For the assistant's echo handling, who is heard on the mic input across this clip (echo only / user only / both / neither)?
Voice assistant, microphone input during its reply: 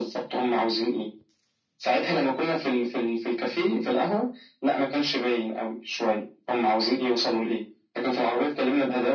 echo only